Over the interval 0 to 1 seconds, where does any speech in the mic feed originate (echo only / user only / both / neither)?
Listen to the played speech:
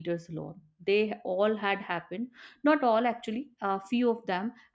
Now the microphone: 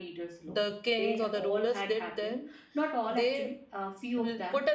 both